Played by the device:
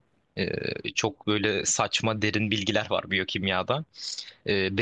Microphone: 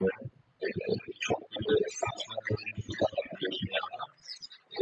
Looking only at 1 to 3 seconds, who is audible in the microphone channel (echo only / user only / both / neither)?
echo only